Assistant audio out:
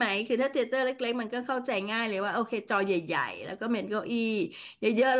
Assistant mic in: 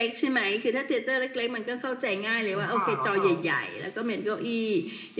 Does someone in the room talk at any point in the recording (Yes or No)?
Yes